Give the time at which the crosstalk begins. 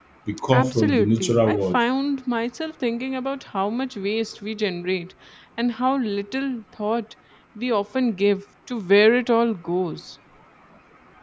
0.5 s

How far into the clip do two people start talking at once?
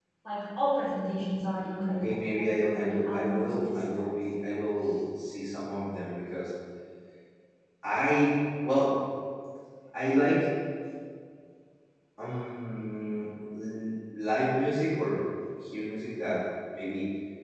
1.9 s

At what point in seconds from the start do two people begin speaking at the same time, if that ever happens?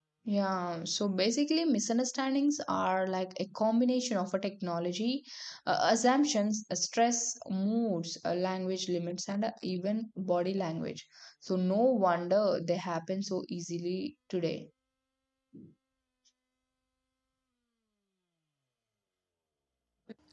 none

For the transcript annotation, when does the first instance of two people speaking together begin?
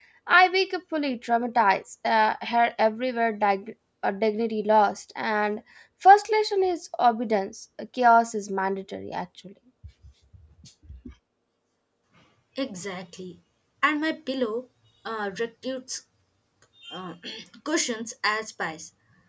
none

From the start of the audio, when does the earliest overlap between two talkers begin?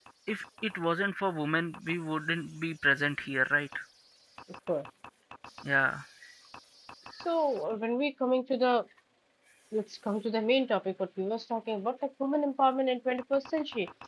none

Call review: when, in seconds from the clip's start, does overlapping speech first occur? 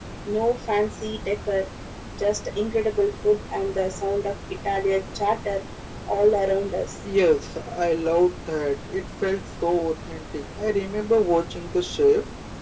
none

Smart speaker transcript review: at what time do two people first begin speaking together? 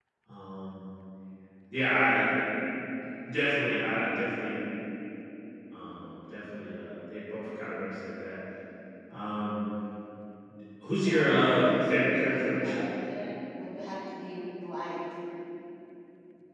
11.0 s

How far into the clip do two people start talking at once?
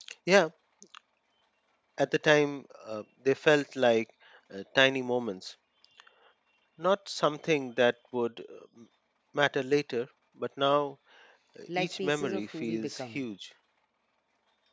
11.8 s

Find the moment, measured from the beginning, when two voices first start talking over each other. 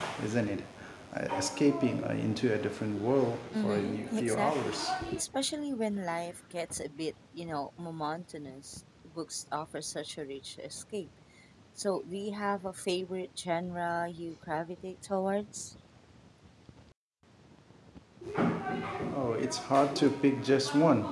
3.5 s

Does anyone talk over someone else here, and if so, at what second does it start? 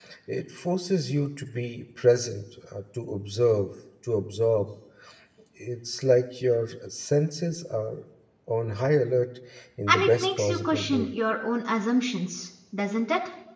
9.9 s

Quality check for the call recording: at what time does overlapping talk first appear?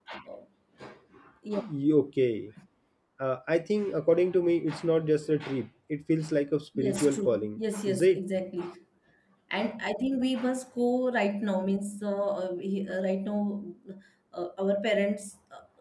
6.8 s

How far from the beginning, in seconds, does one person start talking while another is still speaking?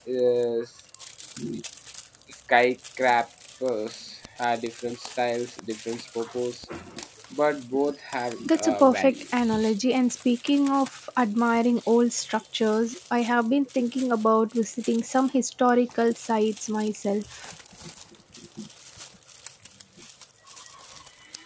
8.4 s

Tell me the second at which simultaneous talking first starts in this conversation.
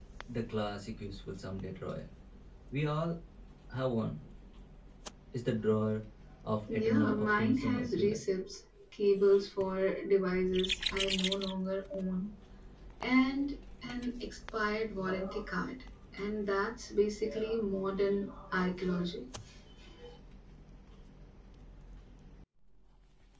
6.7 s

